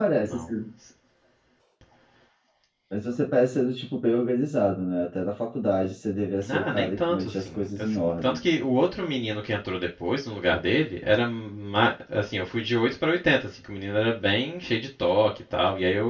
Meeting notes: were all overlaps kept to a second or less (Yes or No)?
No